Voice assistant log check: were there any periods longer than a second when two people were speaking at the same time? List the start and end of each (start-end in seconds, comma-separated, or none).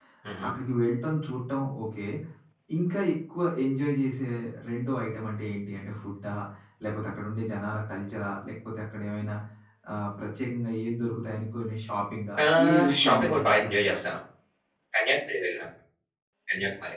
12.6-13.9